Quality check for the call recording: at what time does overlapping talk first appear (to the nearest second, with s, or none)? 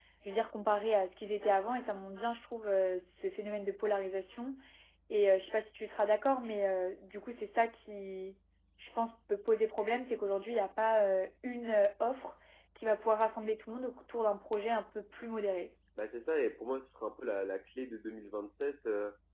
none